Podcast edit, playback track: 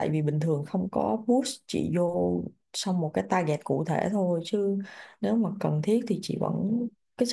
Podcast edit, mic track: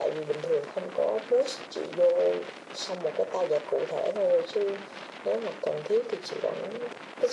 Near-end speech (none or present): none